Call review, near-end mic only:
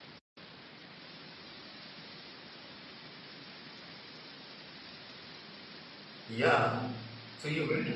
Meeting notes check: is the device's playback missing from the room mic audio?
Yes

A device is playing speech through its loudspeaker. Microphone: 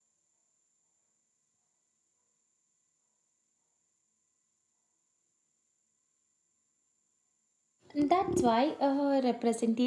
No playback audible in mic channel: Yes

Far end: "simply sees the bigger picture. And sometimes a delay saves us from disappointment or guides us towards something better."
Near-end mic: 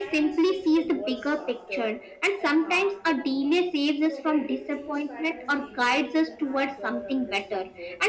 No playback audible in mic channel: No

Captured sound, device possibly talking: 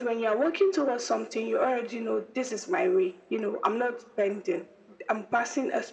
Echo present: Yes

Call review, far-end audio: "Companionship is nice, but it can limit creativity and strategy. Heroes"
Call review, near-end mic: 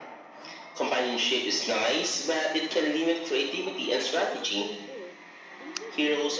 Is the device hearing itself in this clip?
Yes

